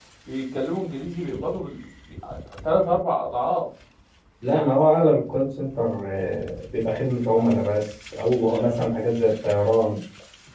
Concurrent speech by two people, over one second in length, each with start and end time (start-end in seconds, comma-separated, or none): none